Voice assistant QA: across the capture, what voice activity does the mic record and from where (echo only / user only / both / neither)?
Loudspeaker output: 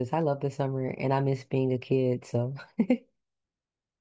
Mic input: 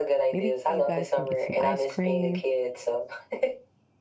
both